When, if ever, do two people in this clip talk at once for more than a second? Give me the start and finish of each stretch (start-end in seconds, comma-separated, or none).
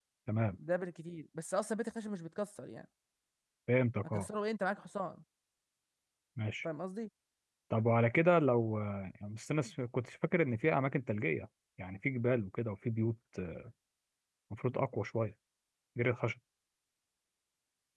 none